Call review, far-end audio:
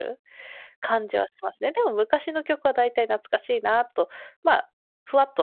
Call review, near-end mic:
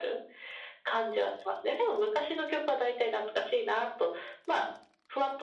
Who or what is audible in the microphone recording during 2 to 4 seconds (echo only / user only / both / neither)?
echo only